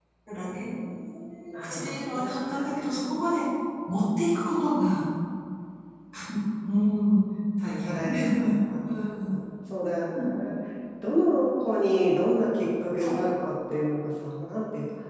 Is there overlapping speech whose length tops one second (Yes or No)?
Yes